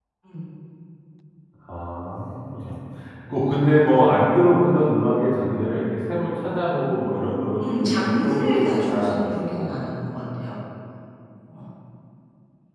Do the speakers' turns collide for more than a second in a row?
Yes, from 7.6 s

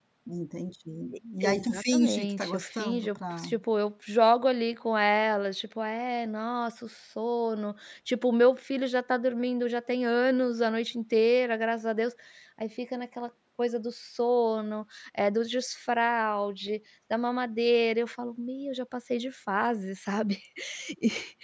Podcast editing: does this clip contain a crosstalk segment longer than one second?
Yes, from 1.4 s

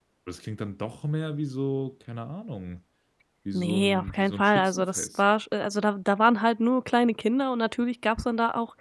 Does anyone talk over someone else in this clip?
Yes, from 3.5 s

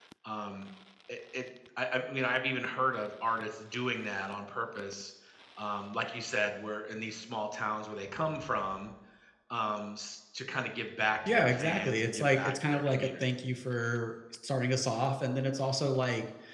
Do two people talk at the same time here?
Yes, from 11.2 s

